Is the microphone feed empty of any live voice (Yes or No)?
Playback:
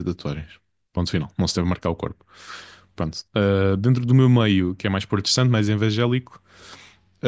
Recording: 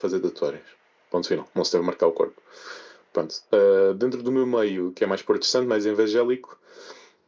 Yes